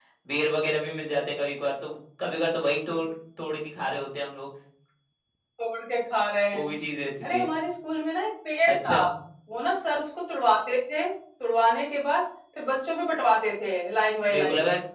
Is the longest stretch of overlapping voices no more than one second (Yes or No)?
Yes